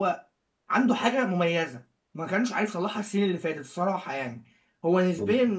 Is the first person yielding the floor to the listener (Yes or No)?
No